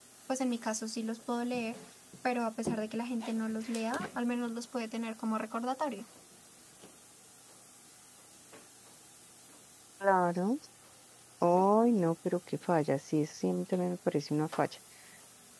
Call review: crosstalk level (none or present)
none